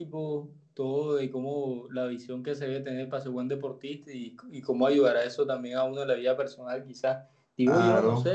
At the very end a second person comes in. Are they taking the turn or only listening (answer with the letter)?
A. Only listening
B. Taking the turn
A